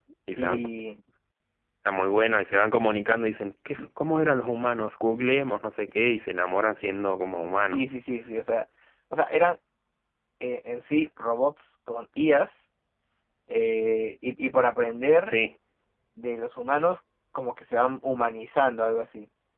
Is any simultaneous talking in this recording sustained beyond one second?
No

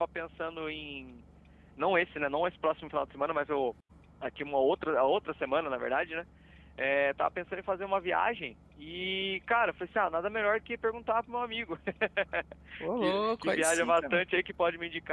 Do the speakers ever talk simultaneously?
Yes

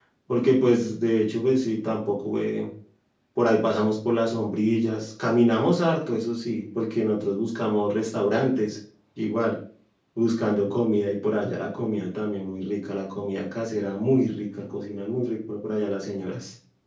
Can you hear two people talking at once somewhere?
No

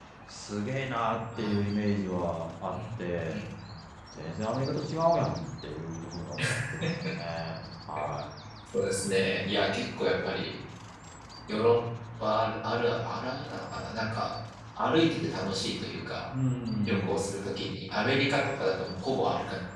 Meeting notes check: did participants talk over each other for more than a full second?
No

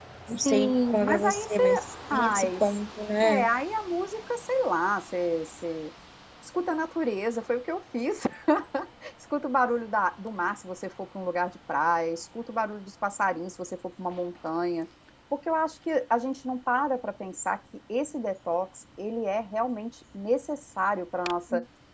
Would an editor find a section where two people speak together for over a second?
Yes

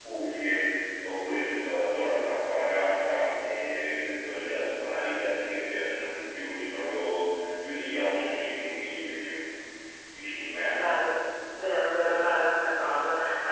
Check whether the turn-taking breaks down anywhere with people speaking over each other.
No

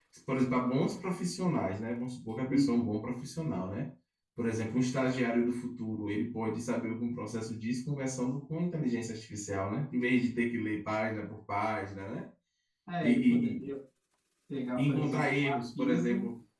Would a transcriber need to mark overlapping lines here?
Yes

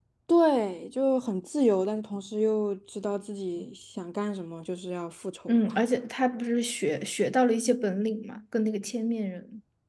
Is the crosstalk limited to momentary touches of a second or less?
Yes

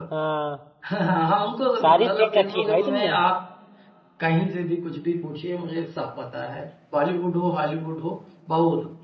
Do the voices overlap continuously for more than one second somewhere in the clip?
Yes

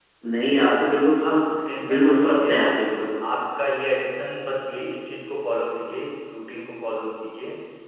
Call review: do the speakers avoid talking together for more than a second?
No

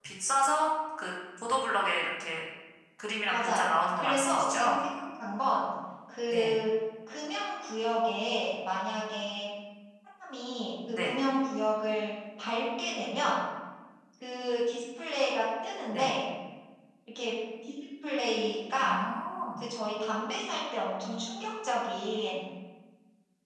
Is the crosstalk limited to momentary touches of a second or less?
No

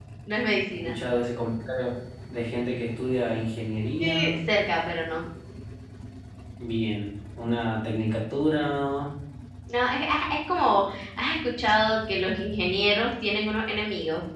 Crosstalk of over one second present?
No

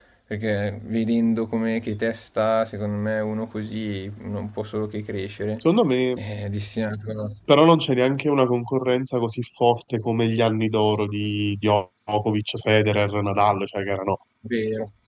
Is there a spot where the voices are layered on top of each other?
No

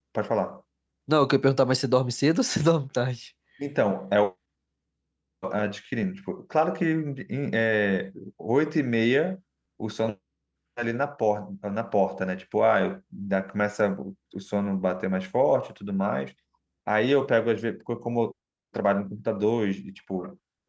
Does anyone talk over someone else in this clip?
No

